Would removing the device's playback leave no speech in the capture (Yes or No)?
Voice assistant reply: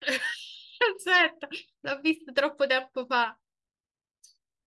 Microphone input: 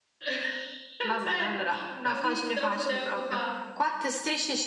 No